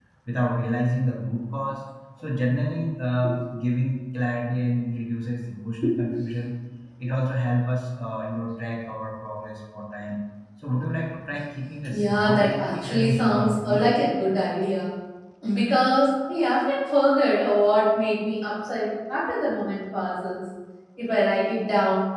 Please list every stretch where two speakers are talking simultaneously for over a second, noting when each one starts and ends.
11.9-13.8

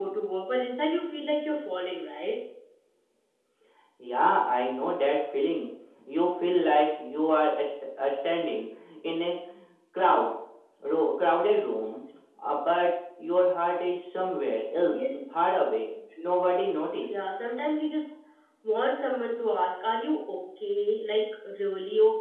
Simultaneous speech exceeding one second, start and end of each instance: none

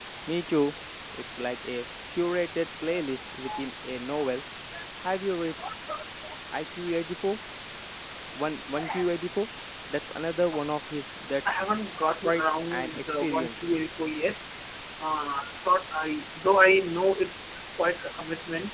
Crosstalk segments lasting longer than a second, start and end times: 12.2-13.6

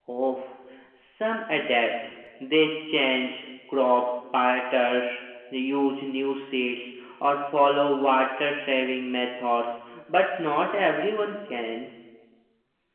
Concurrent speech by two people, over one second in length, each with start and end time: none

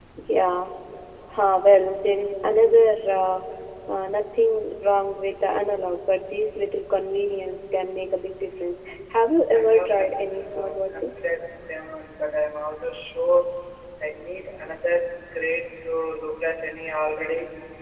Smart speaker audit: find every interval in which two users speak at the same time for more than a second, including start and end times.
9.5-11.2

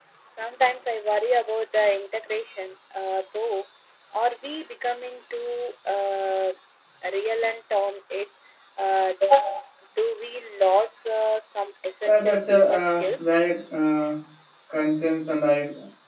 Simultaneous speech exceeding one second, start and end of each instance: 12.1-13.3

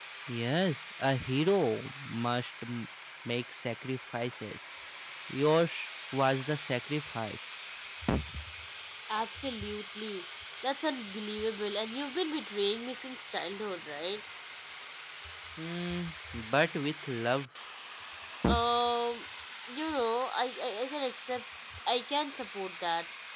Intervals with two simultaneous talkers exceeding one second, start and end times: none

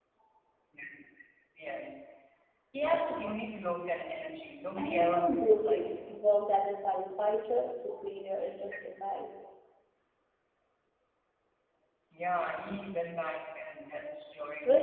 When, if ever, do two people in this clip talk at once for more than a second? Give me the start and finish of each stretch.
4.8-6.1

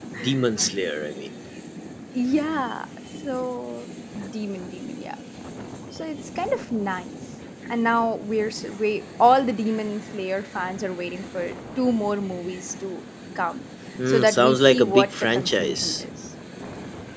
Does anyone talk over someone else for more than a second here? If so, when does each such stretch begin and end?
14.1-16.0

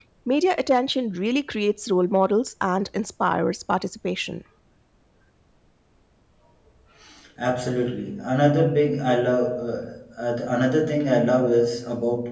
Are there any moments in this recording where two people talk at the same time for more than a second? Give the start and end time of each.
none

